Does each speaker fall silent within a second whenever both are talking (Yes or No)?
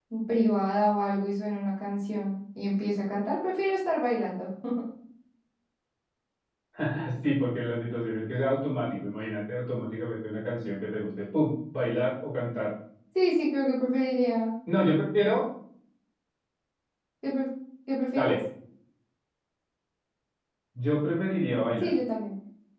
Yes